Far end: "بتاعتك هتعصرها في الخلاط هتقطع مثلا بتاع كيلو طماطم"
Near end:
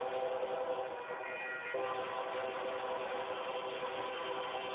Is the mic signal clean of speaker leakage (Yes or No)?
Yes